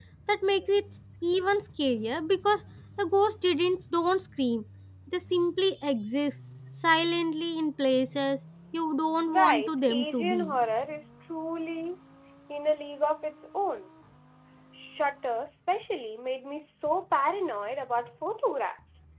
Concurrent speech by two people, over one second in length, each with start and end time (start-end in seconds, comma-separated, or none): 9.3-10.6